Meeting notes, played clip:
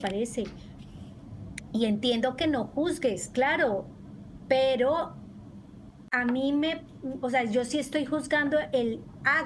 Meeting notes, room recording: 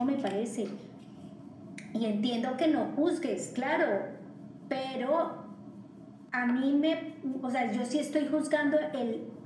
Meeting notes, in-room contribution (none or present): none